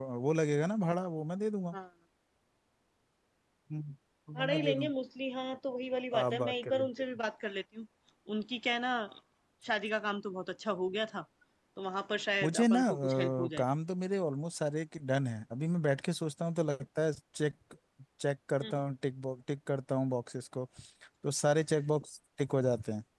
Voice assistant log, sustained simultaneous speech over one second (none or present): present